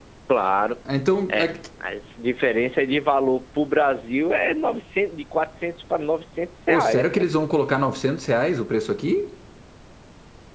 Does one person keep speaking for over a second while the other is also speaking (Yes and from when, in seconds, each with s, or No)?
No